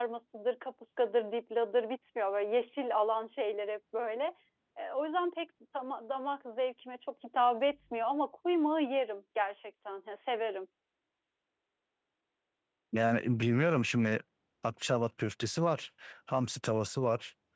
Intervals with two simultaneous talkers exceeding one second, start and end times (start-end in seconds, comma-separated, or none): none